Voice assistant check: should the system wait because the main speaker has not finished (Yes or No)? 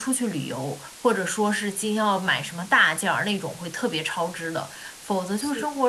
Yes